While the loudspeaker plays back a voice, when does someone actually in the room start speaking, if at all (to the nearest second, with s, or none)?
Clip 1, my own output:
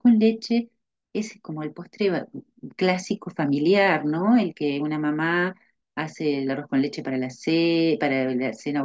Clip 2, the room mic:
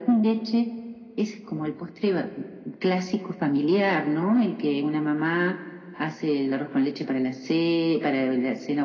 none